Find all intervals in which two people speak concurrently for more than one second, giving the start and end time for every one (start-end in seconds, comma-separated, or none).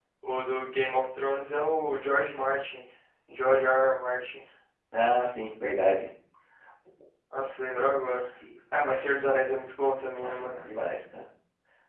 none